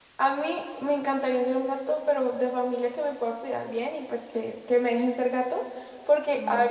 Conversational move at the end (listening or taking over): listening